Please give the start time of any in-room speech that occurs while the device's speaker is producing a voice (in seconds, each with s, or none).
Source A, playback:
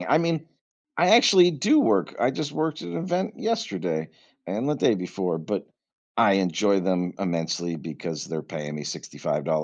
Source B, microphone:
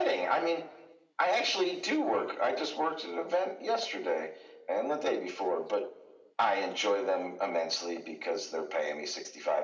none